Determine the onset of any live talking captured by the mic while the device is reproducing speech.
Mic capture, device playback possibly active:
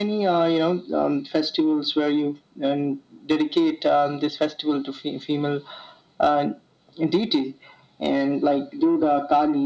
none

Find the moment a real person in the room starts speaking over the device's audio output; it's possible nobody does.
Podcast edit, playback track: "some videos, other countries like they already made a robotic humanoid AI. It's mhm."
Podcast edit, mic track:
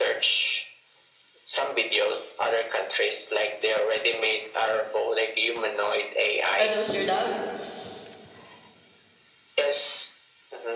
7 s

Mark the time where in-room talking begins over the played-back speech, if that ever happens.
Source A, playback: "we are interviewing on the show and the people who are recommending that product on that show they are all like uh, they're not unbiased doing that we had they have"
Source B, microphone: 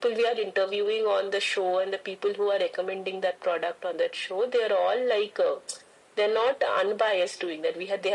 none

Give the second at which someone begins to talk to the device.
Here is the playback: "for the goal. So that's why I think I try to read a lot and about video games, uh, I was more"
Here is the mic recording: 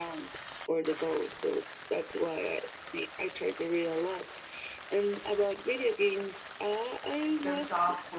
7 s

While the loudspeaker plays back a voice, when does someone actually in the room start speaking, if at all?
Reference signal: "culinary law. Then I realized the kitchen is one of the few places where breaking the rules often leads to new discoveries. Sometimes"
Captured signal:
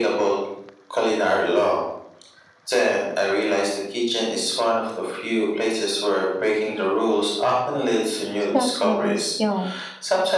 8 s

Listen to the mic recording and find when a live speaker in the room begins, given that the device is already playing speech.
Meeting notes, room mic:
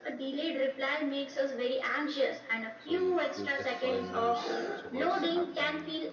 3 s

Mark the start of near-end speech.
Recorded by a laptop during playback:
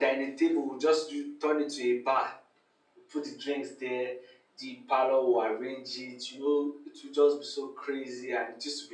none

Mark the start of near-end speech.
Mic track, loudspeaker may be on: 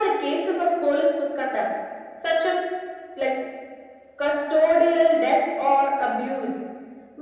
none

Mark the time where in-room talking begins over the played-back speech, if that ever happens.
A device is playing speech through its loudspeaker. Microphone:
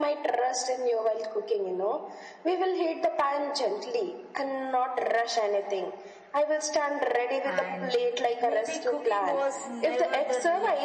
7 s

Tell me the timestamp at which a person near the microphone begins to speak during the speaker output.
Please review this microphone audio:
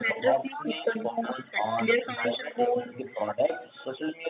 none

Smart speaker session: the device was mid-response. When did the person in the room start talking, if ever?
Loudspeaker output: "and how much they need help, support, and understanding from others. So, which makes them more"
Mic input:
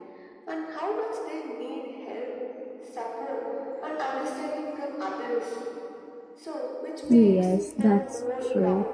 7 s

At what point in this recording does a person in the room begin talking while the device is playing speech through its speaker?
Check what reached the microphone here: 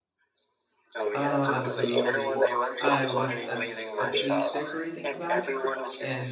1 s

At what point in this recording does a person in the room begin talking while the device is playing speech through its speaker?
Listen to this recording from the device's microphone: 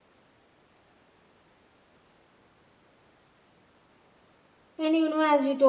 5 s

